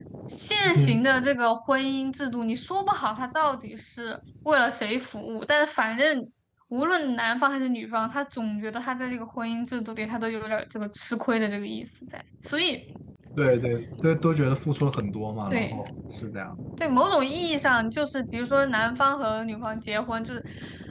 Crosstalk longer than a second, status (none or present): none